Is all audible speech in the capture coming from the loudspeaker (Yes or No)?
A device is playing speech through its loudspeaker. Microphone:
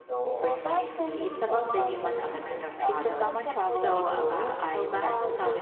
No